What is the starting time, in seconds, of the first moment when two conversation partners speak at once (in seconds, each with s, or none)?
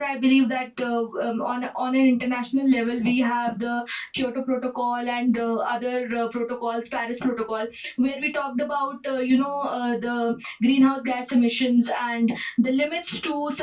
none